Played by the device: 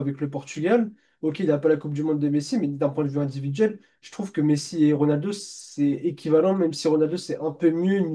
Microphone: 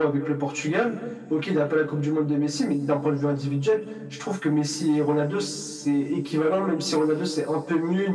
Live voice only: none

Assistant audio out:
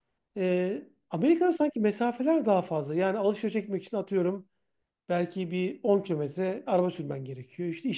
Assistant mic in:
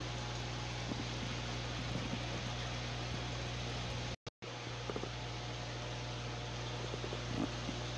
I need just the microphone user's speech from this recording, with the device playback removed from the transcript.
none

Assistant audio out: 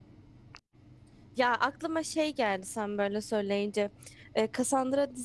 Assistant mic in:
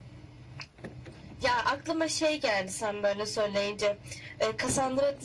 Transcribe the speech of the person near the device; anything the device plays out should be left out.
none

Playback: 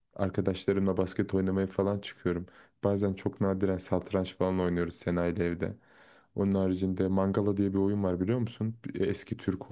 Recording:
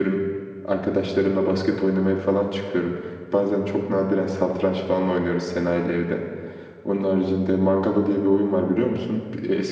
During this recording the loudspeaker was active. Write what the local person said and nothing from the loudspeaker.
none

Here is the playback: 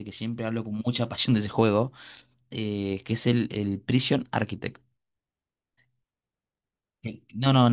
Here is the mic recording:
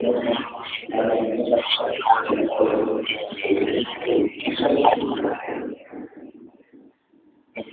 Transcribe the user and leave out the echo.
none

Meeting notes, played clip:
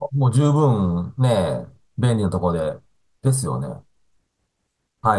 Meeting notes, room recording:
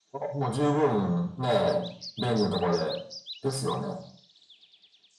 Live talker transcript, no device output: none

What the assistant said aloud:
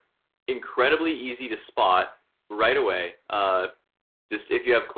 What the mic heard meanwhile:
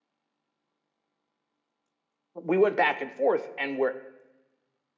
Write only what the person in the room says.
we went back and forth, and where

